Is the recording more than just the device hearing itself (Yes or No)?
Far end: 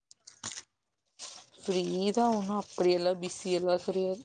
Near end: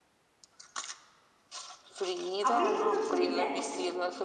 Yes